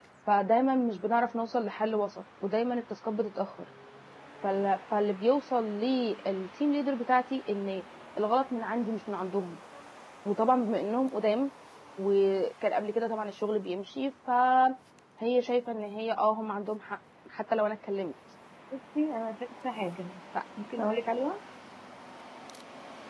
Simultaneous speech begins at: none

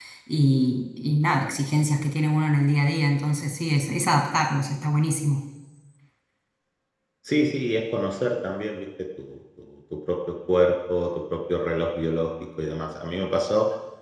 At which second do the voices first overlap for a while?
none

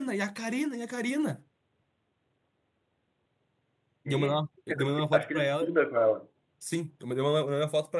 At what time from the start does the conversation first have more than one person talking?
4.1 s

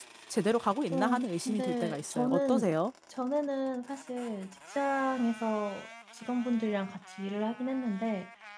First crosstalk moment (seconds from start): 0.9 s

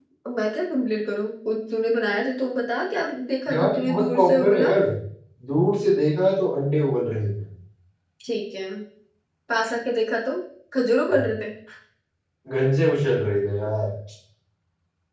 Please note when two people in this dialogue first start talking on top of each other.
3.5 s

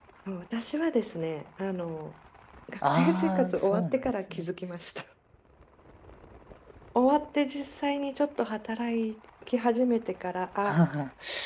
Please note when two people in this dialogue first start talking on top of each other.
2.8 s

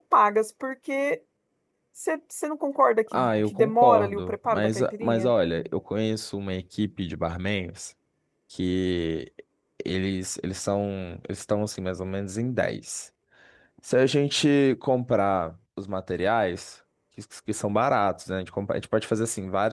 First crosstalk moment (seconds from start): 3.1 s

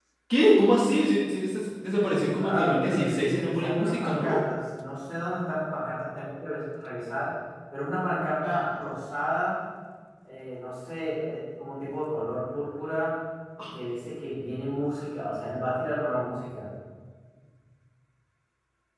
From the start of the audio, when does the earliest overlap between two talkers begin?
2.4 s

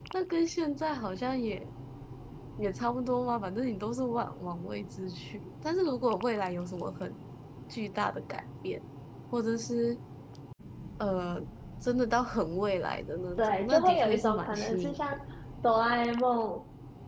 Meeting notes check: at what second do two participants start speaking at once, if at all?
13.4 s

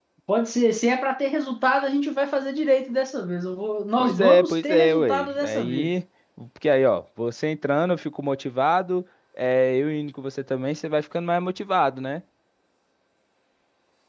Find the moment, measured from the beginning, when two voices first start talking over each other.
4.0 s

